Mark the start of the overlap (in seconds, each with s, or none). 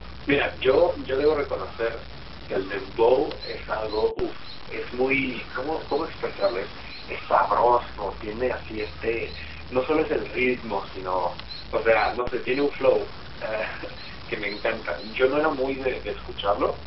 none